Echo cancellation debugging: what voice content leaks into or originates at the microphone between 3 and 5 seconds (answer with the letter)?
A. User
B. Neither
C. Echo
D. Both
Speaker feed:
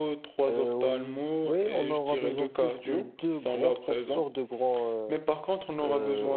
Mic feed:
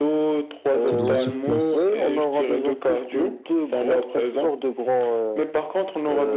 C